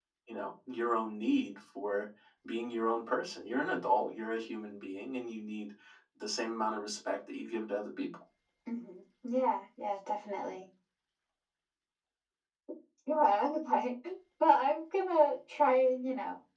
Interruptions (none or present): none